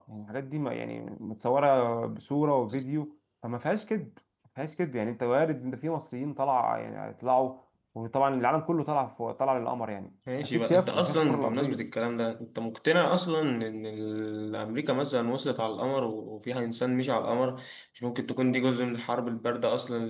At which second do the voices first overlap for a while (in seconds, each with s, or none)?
10.3 s